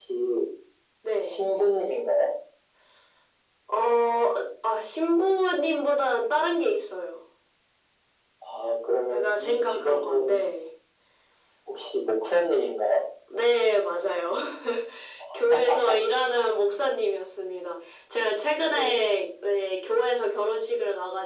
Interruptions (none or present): present